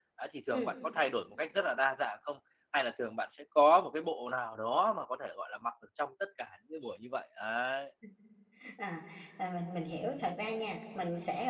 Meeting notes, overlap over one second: none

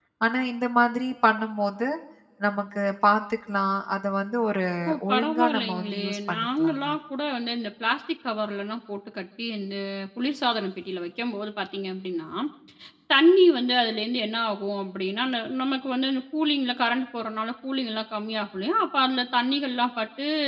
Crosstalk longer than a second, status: present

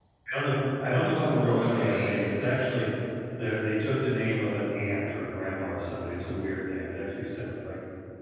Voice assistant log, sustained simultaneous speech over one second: present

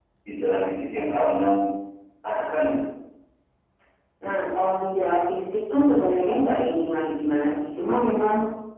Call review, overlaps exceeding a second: none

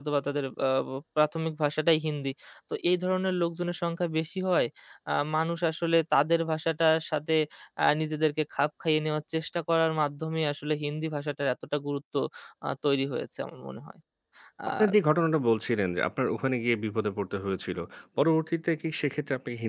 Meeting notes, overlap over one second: none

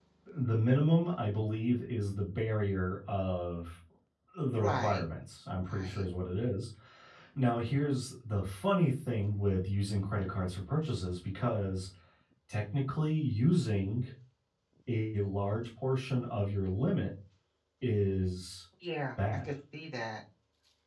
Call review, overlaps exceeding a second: none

